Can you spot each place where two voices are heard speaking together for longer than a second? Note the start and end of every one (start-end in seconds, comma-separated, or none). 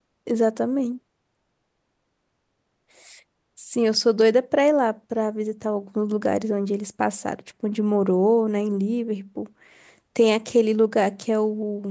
none